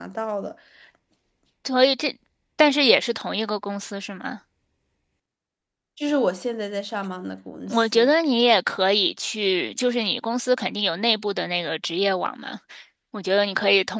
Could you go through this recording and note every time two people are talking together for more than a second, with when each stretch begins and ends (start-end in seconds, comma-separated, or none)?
none